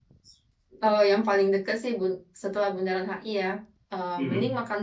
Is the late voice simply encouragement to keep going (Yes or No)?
Yes